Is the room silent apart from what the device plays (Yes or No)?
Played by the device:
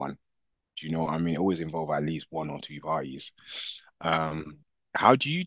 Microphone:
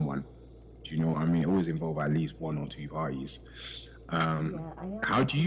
No